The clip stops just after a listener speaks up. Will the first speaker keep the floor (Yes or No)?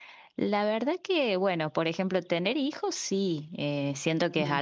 Yes